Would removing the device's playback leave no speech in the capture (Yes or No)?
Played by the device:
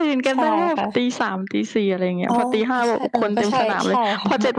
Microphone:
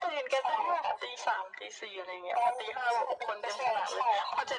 Yes